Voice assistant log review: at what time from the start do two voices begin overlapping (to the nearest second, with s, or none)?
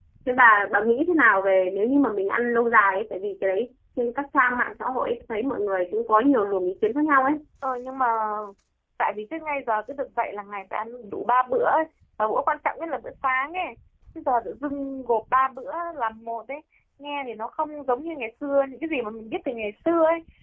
none